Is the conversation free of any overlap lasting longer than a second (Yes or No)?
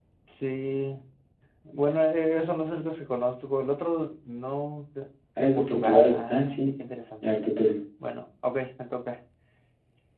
No